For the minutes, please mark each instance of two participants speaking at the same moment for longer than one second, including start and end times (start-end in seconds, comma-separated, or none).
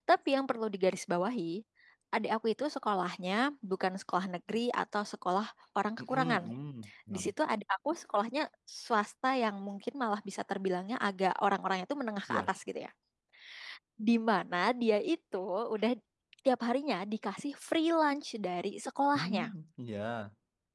none